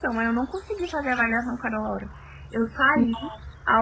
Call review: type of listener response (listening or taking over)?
listening